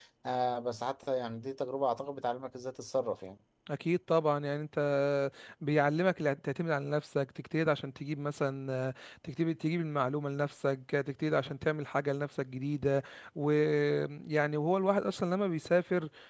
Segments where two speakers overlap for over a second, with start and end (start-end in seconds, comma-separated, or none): none